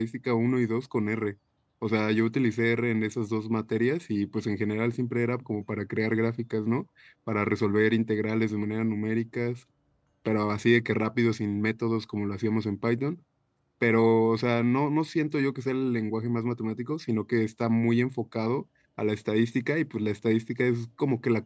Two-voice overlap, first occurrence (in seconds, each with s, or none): none